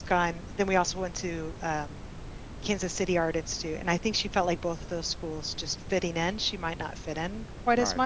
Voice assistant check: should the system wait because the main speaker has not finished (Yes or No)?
No